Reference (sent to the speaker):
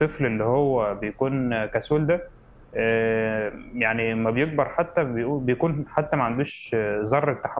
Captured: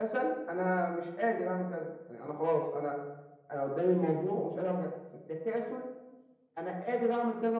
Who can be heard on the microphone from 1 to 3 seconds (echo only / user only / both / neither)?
user only